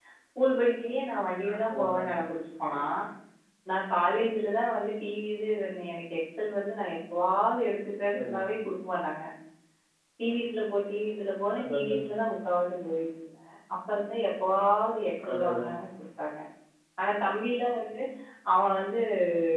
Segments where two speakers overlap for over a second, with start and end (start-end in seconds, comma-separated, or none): none